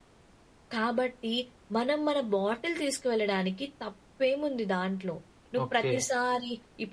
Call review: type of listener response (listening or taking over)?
listening